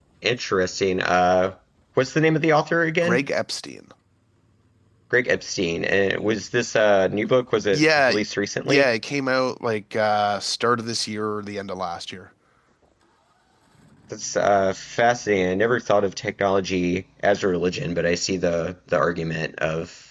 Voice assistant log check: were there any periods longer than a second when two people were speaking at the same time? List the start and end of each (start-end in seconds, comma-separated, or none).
none